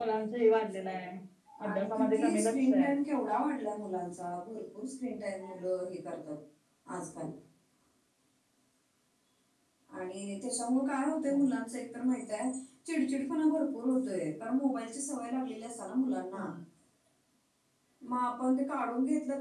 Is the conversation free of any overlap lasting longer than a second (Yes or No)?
No